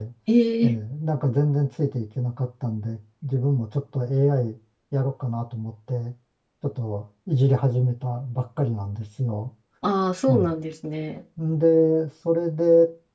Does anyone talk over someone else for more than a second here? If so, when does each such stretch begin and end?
none

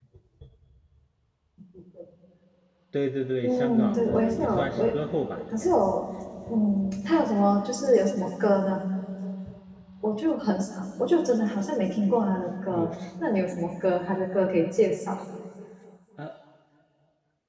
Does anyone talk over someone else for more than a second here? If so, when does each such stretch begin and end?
3.4-4.9

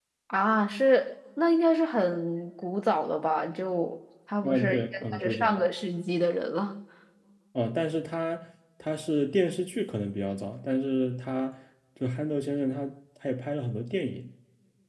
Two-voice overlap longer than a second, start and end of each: 4.4-5.6

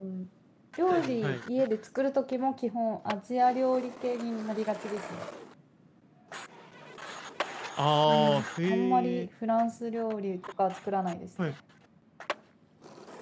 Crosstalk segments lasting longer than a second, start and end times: 8.1-9.3

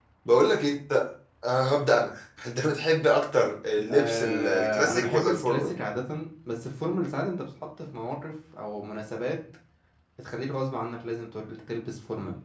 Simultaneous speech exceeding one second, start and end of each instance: 3.9-5.7

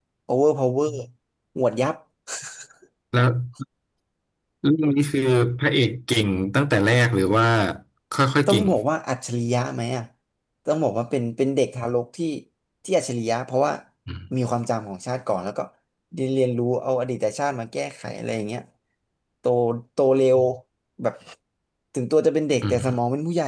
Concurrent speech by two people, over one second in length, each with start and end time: none

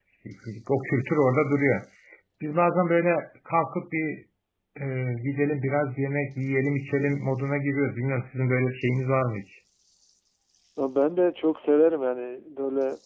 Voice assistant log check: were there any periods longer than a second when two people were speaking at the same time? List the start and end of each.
none

